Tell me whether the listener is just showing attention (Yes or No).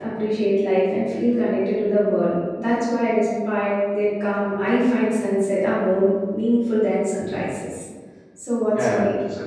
No